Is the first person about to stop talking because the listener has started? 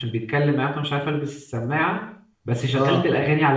No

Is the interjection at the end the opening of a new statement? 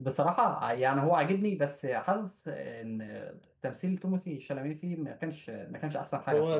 Yes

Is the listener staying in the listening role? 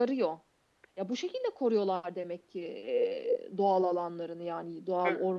No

